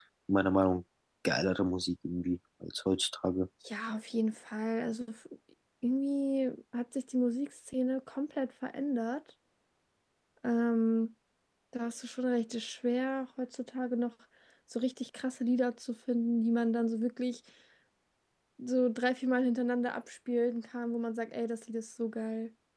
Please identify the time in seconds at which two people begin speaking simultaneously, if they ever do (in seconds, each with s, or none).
none